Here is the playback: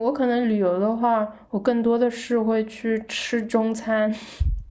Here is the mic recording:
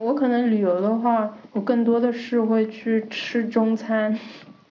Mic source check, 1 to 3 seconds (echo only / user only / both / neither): echo only